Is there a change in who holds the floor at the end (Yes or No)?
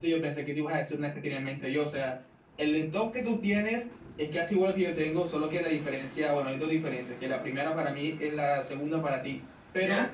No